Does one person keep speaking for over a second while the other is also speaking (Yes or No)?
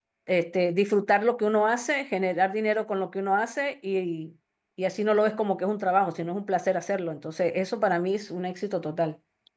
No